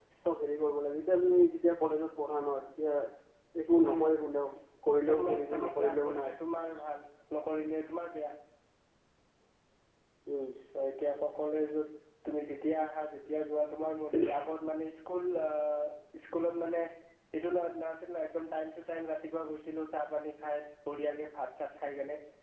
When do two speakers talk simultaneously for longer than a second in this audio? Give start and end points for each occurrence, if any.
5.1-6.4

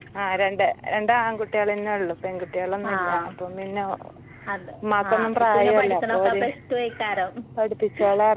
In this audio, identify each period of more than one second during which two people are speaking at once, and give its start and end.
5.1-6.4

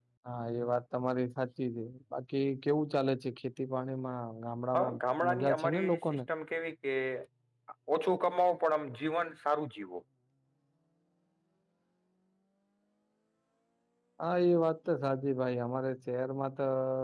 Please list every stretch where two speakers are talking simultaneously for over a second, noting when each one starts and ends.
4.7-6.2

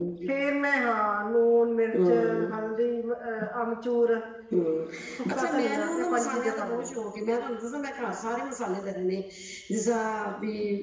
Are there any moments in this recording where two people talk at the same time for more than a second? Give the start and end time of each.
5.3-6.9

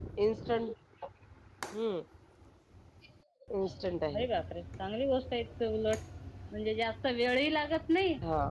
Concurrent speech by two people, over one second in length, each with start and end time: none

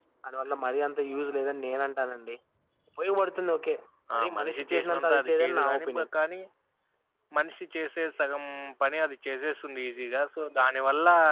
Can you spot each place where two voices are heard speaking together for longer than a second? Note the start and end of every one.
4.3-6.0

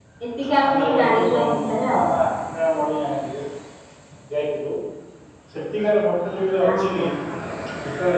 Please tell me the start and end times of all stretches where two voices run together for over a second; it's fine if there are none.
0.7-2.0

